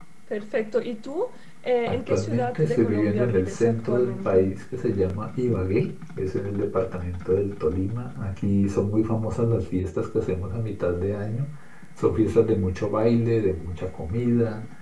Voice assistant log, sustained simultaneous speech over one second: present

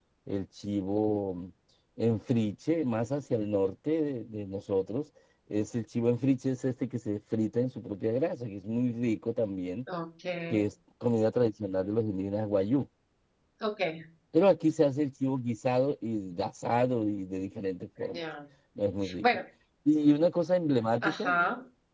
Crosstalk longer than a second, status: none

